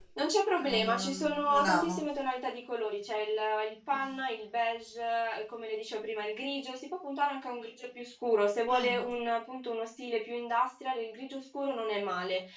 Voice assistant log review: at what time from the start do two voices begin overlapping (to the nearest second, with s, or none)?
1 s